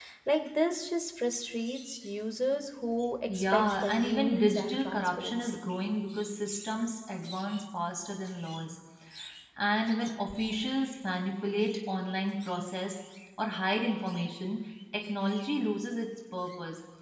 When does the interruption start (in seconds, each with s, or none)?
3.3 s